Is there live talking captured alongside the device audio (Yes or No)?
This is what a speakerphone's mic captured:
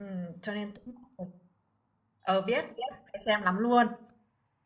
Yes